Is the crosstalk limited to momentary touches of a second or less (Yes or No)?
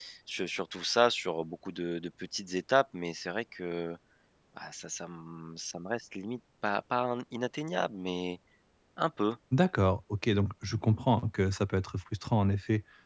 Yes